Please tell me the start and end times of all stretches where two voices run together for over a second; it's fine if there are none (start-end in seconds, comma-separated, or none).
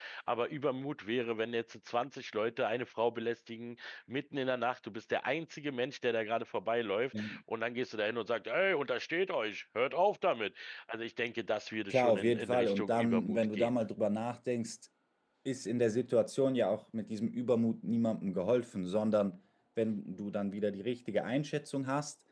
11.9-13.8